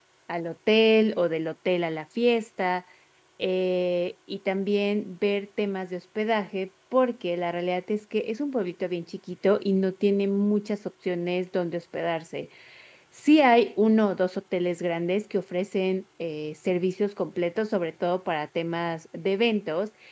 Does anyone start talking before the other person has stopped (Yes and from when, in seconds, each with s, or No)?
No